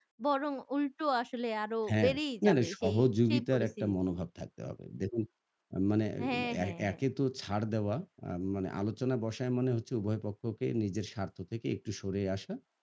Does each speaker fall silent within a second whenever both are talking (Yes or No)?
No